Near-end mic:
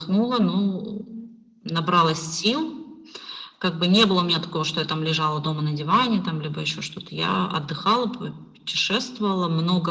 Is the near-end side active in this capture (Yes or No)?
No